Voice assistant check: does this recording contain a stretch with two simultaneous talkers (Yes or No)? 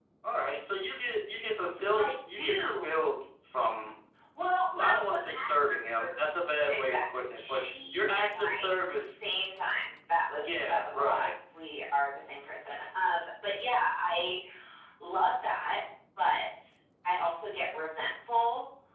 Yes